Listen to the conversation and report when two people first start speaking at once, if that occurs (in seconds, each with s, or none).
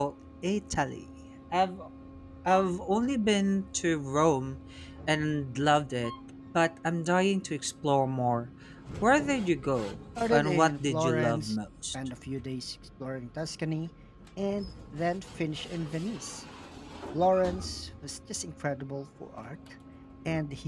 10.2 s